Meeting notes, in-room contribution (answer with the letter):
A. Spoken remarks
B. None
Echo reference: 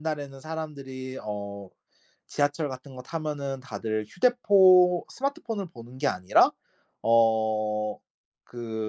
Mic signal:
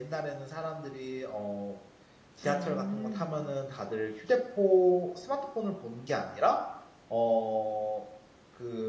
A